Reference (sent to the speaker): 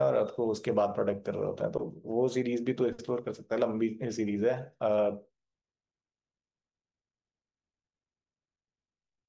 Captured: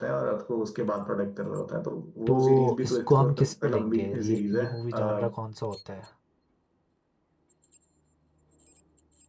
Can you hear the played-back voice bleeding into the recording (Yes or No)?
Yes